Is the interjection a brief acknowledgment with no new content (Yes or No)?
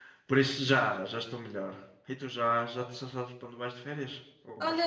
No